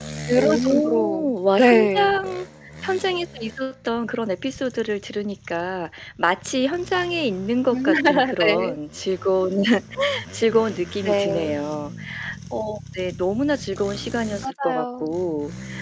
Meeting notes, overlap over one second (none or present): present